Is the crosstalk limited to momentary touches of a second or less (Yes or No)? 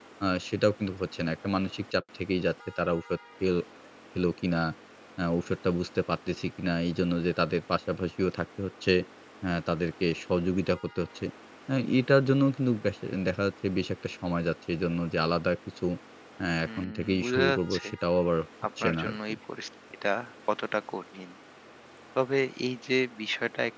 No